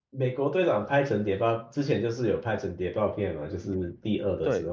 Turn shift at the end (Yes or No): Yes